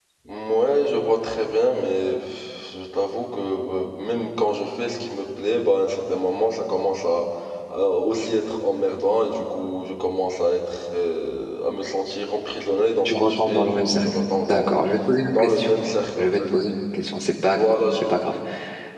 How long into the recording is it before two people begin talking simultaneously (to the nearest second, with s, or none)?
13 s